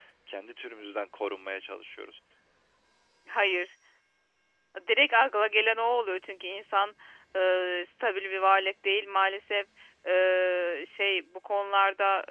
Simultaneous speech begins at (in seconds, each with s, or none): none